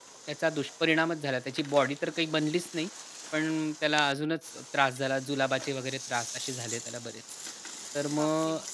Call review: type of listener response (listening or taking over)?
listening